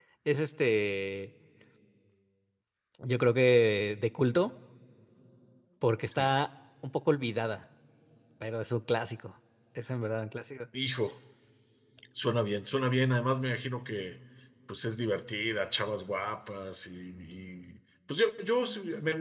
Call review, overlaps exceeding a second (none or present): none